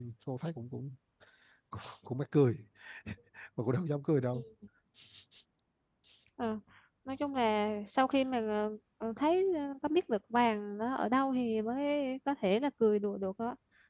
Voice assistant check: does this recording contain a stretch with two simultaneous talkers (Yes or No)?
No